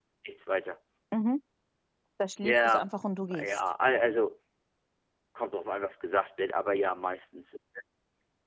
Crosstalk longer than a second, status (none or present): none